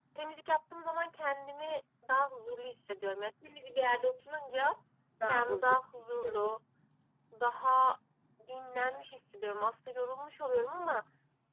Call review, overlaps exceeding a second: present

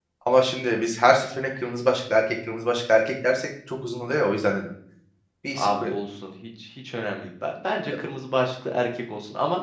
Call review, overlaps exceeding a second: none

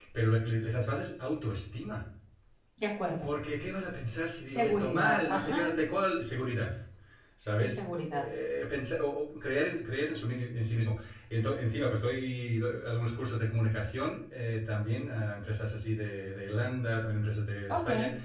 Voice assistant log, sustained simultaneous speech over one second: present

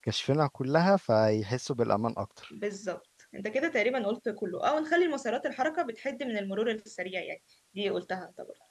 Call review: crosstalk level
none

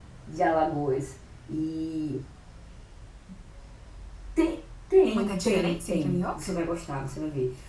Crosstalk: present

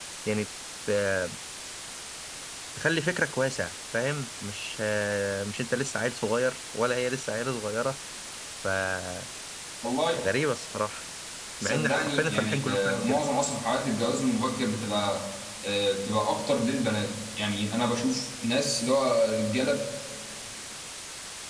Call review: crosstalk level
present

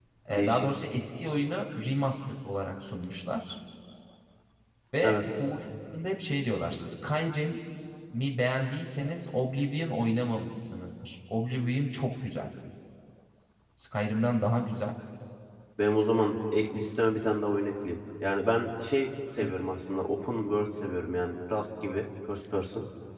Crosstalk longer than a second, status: none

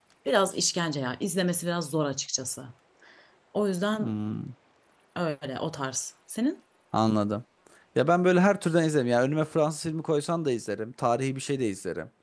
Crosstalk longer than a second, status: none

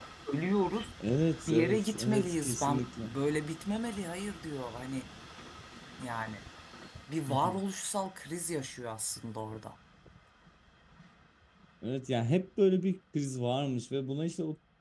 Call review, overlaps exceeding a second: present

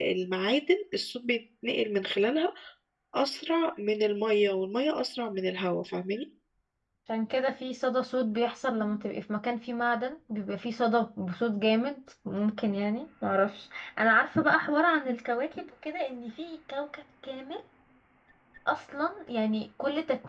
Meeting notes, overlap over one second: none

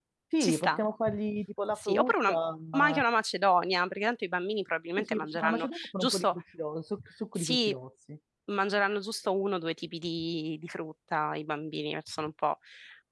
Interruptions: present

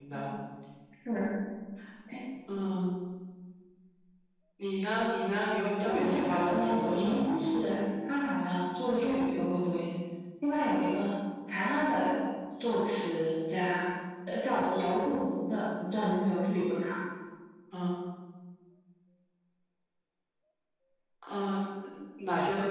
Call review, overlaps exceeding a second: present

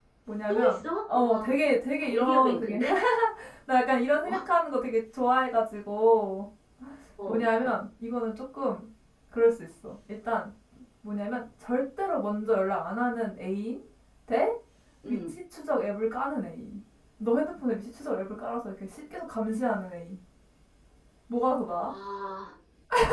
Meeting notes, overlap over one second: present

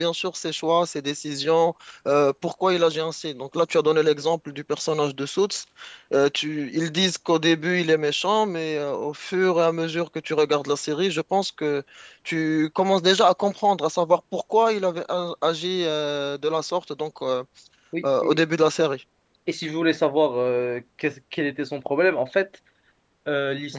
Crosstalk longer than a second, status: none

